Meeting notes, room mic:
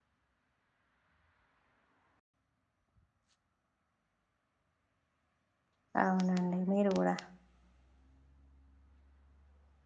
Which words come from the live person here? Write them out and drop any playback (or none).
అవునండి మీరు కూడా